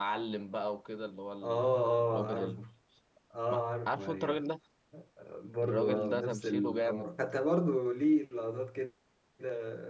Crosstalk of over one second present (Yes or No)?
Yes